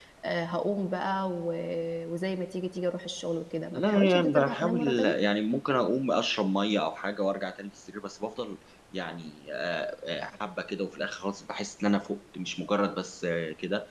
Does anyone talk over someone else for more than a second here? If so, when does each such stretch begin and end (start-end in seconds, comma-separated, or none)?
3.8-5.1